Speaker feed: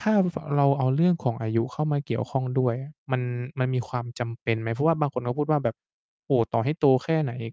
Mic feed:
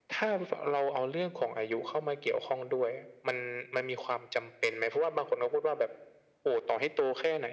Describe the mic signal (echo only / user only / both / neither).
echo only